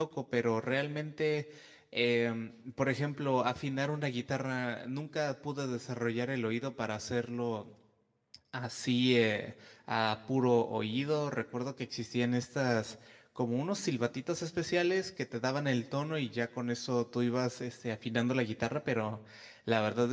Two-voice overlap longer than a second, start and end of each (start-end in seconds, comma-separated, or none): none